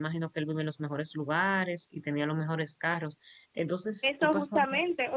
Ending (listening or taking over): taking over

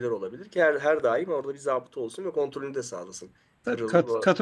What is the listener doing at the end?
taking over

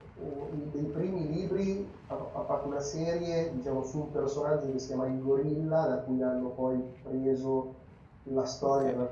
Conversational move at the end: listening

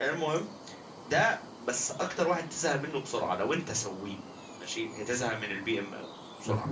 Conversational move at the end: taking over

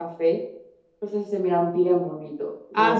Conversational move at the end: taking over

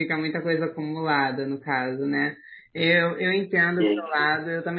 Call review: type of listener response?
listening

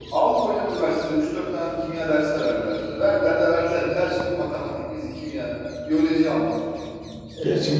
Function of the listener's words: taking over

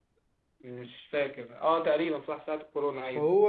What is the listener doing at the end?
taking over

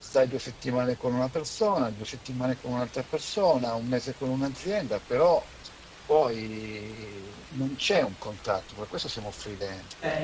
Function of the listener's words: taking over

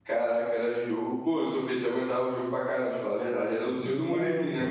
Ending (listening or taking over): taking over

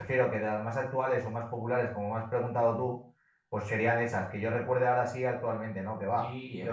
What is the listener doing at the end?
taking over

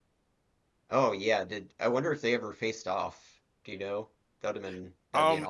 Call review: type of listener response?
taking over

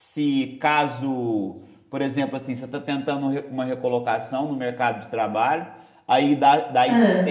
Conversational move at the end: listening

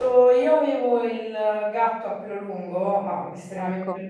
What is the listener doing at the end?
listening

